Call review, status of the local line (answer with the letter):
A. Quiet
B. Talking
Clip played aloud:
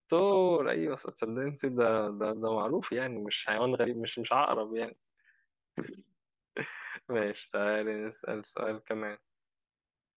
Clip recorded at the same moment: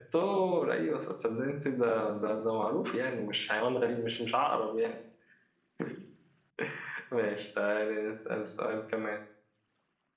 A